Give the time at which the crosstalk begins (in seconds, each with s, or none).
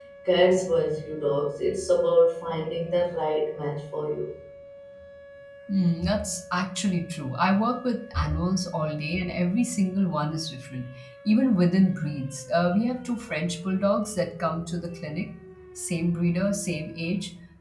none